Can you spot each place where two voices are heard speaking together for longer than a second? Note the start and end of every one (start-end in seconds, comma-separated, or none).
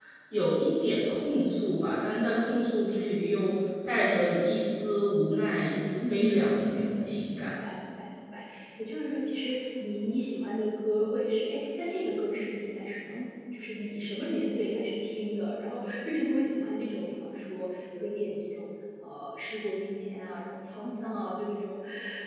6.0-7.5